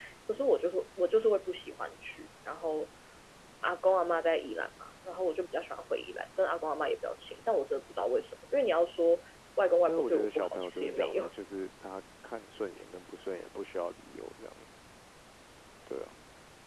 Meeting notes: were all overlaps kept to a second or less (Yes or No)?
No